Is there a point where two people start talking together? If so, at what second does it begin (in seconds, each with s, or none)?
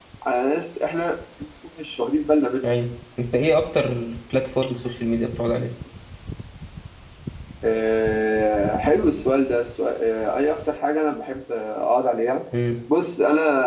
none